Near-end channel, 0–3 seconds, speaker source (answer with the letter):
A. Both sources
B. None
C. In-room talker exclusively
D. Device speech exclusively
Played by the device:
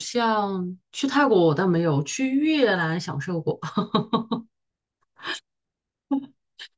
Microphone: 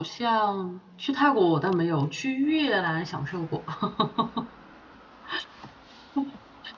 D